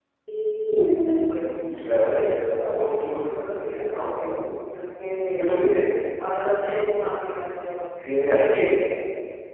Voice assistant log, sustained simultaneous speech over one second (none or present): present